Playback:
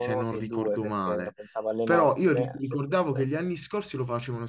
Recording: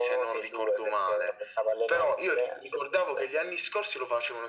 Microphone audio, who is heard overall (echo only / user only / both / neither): echo only